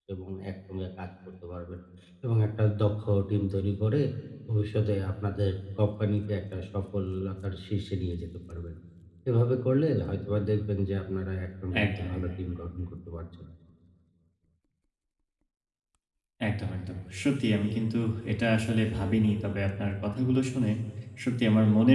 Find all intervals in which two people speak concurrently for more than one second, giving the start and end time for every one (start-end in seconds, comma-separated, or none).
none